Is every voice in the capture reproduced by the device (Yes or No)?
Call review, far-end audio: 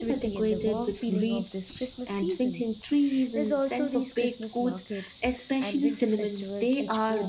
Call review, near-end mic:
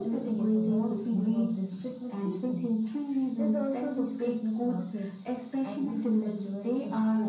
Yes